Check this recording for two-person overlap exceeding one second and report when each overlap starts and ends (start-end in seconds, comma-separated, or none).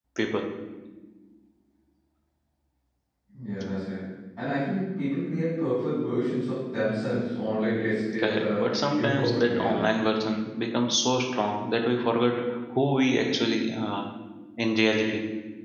8.2-9.8